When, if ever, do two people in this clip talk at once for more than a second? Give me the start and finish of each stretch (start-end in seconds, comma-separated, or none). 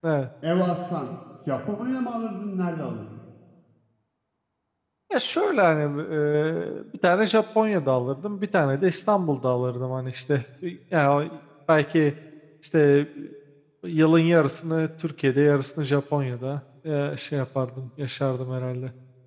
none